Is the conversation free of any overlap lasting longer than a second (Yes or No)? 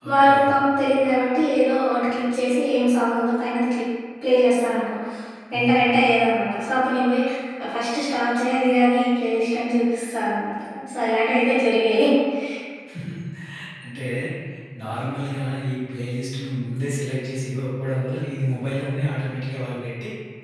Yes